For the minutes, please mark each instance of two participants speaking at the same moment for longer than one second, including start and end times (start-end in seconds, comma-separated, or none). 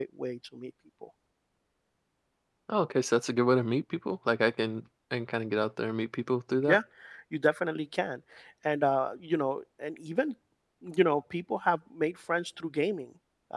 none